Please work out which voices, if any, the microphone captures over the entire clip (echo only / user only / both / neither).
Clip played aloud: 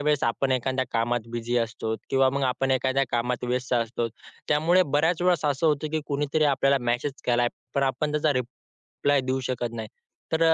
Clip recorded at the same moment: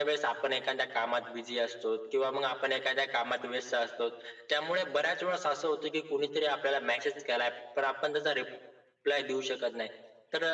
echo only